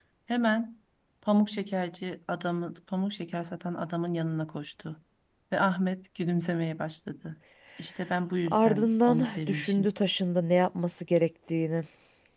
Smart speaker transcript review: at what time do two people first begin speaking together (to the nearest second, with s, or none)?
8 s